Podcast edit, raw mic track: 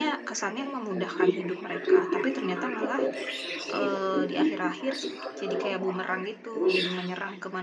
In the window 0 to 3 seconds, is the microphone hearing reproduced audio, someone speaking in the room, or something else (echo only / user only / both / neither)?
both